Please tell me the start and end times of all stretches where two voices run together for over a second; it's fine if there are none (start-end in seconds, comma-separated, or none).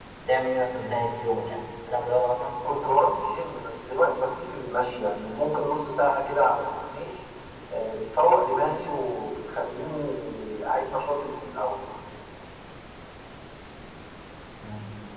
none